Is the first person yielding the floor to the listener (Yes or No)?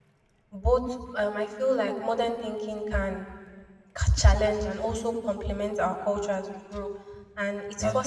No